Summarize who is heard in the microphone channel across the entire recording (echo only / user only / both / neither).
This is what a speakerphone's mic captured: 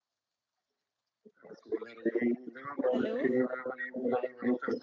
both